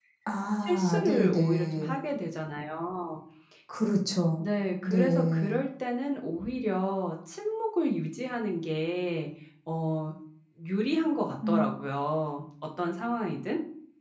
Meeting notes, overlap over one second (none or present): present